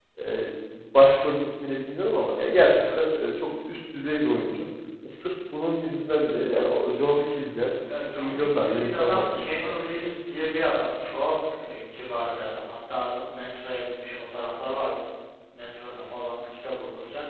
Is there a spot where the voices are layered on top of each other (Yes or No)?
Yes